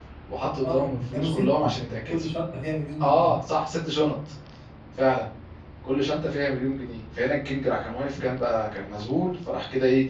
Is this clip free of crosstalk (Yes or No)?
No